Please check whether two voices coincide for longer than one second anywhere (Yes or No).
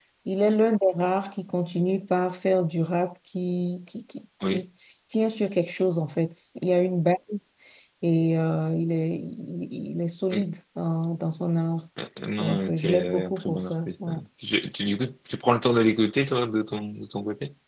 Yes